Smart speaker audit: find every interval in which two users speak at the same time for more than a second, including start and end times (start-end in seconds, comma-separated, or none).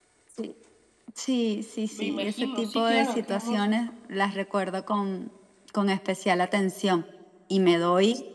1.9-3.6